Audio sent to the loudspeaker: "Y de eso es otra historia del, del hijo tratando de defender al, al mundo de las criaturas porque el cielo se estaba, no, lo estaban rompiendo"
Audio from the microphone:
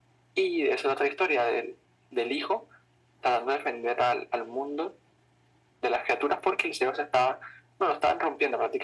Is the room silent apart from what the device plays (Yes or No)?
Yes